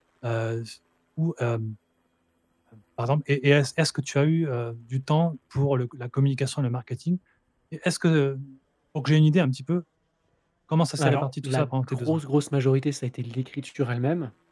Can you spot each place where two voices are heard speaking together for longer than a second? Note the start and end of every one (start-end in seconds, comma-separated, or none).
11.0-12.2